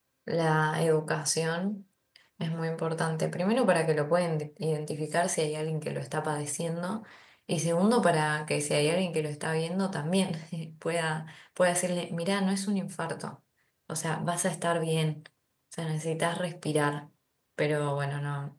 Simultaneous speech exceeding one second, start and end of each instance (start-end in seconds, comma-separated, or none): none